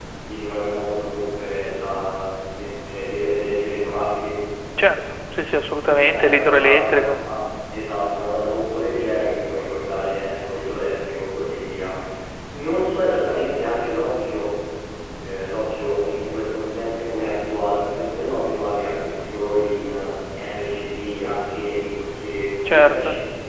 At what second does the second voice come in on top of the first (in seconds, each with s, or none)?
5.9 s